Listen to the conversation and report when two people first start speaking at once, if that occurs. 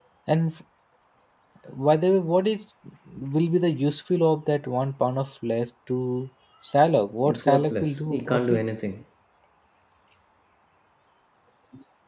7.2 s

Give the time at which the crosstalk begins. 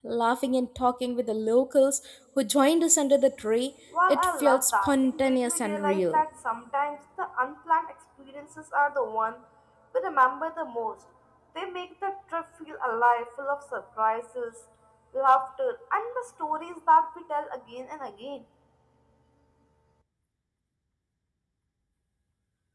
3.9 s

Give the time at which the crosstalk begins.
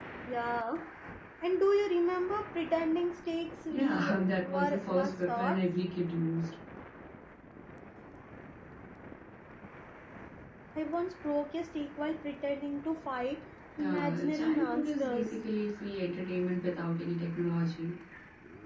3.7 s

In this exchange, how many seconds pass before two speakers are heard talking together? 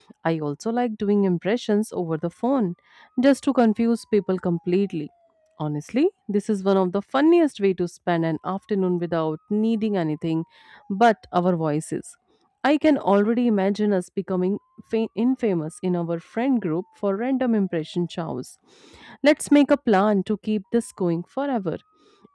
none

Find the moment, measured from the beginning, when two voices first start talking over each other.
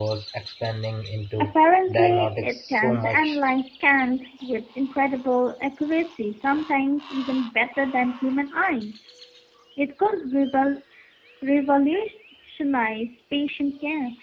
1.9 s

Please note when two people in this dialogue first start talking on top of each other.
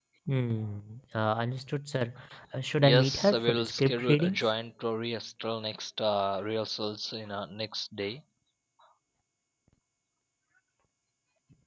2.8 s

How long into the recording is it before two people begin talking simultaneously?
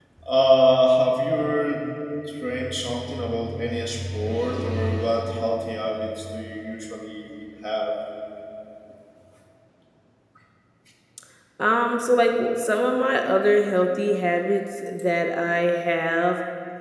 none

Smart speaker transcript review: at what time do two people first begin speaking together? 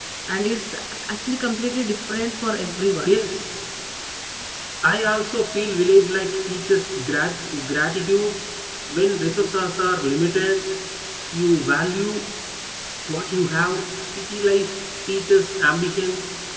none

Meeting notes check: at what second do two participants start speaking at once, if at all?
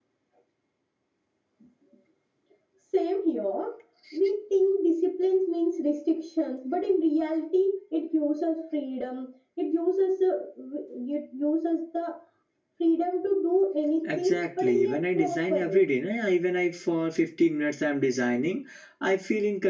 14.1 s

